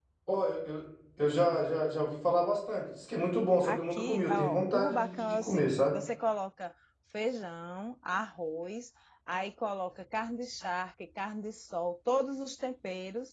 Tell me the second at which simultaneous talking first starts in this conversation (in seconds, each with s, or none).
3.6 s